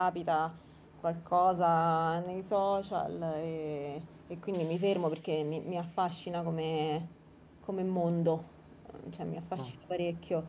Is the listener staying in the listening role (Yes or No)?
Yes